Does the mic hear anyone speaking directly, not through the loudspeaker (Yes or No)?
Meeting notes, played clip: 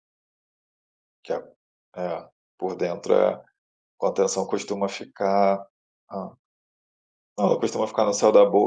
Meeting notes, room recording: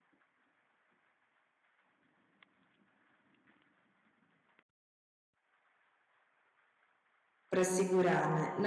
Yes